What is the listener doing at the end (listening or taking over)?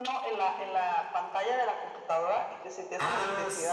taking over